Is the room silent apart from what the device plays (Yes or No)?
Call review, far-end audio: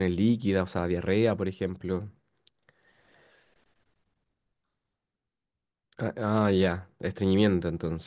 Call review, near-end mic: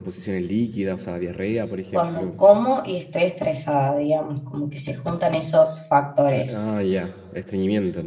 No